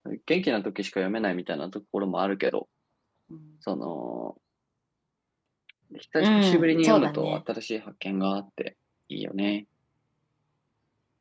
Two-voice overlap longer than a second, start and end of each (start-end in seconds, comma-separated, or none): 6.2-7.4